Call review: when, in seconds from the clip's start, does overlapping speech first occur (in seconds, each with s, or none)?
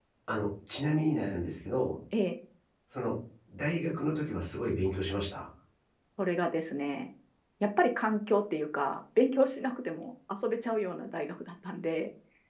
none